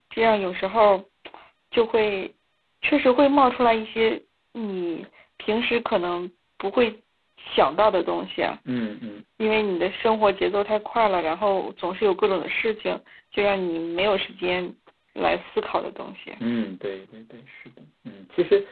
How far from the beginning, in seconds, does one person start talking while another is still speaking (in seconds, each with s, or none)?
none